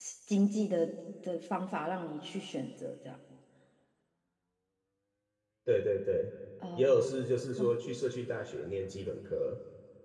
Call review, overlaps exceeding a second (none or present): none